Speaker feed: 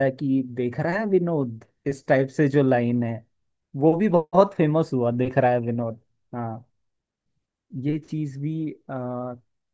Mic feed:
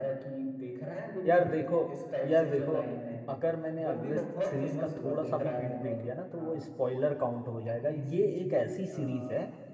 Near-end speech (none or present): present